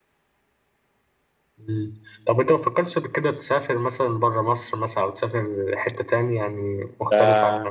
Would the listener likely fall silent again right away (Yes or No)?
No